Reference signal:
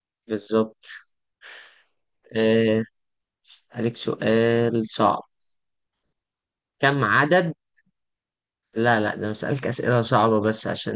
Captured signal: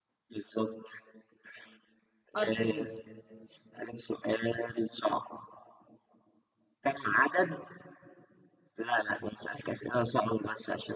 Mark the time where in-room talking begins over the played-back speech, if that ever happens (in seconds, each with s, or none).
2.4 s